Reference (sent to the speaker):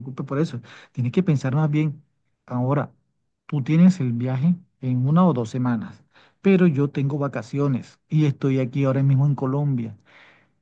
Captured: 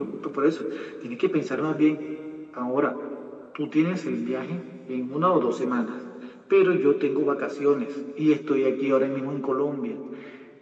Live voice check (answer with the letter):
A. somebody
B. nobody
B